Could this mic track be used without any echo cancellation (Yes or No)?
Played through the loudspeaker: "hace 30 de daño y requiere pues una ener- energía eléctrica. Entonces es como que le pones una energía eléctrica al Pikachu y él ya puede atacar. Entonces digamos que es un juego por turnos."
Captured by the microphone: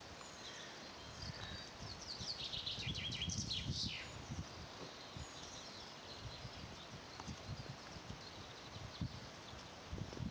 Yes